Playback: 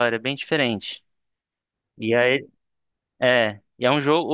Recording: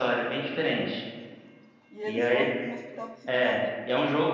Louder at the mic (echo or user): echo